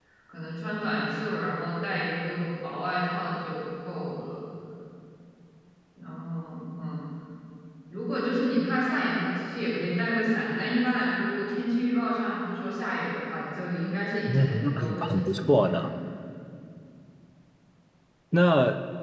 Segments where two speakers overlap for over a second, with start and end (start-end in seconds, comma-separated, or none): 14.3-15.9